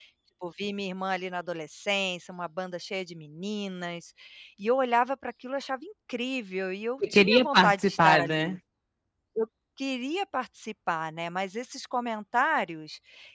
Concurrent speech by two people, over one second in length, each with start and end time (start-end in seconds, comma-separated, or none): 7.1-8.6